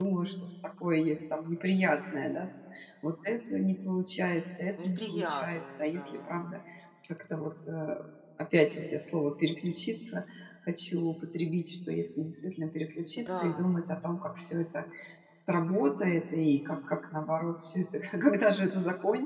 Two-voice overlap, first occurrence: 4.8 s

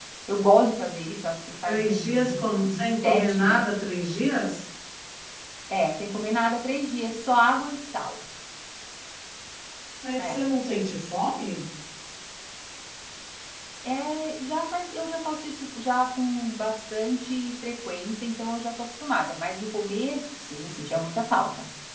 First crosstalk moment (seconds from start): 1.6 s

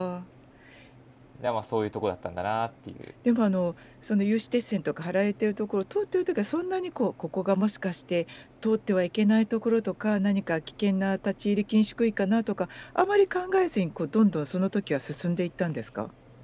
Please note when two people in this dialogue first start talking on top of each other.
none

